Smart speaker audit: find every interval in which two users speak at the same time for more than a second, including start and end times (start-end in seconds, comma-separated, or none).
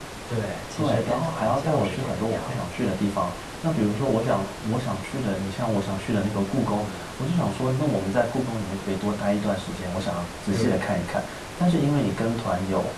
0.8-2.9